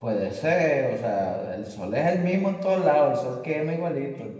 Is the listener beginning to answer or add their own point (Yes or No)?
Yes